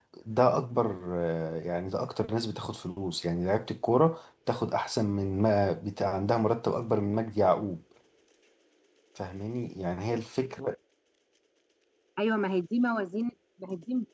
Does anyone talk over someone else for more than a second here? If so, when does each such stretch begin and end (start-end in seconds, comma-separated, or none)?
none